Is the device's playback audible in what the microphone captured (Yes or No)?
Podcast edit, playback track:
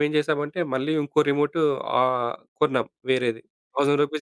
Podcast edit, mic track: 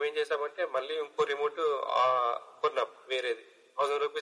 Yes